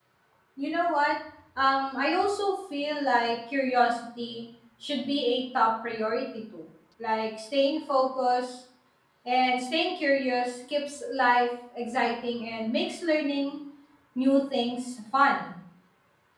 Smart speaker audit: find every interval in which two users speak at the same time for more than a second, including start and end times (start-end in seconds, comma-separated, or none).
none